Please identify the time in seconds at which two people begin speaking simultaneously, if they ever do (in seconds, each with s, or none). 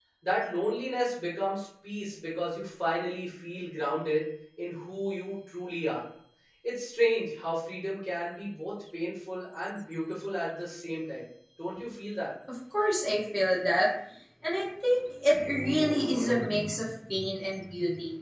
none